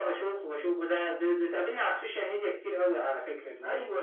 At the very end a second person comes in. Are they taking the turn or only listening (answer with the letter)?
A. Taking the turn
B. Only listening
A